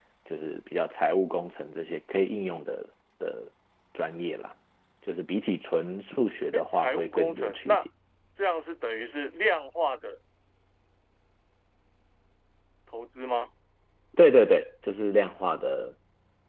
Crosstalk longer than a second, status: present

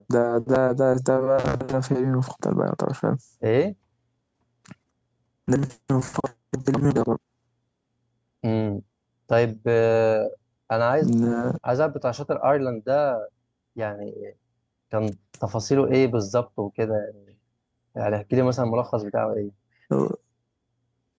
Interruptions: none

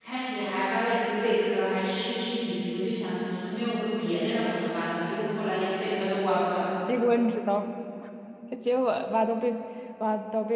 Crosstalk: none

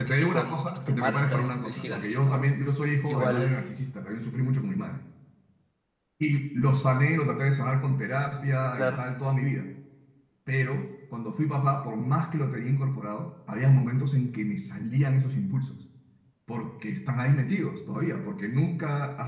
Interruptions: present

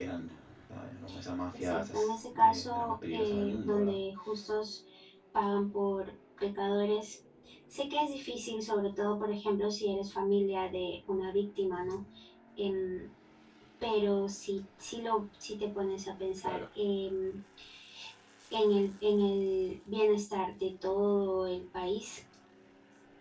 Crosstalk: present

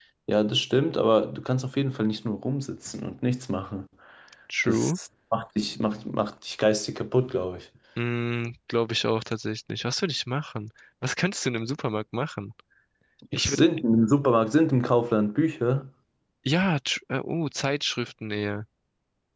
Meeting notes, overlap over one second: none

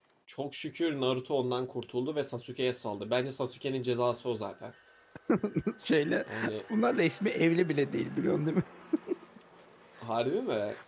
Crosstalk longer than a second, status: none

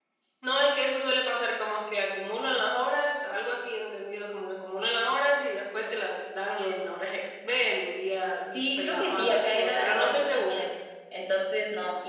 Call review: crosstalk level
present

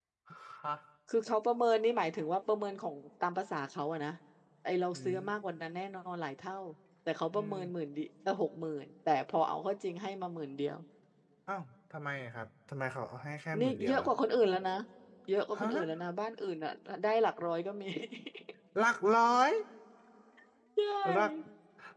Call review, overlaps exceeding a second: none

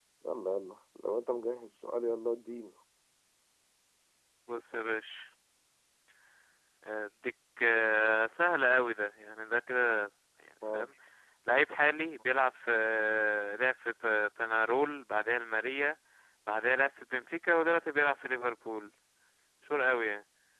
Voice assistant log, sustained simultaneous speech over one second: none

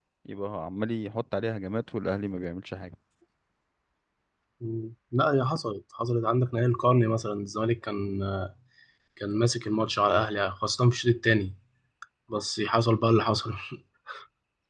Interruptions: none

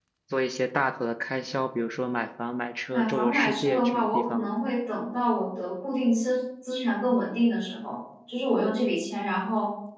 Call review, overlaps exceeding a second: present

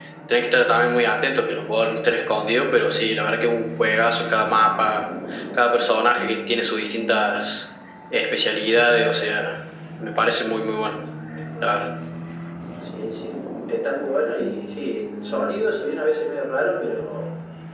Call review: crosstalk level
none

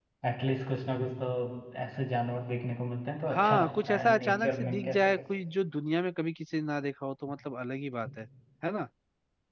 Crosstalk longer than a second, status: present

